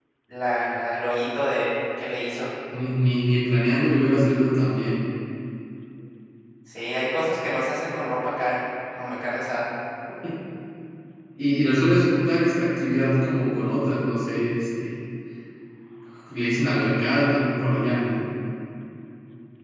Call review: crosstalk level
none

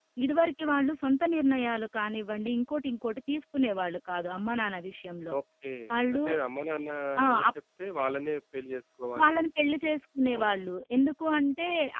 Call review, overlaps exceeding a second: none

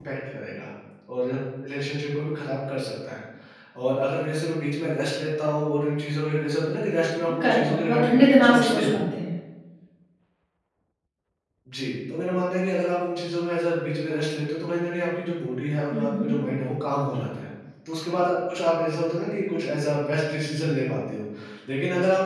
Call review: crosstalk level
present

